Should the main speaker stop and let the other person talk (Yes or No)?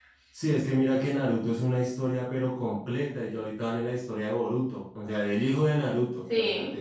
No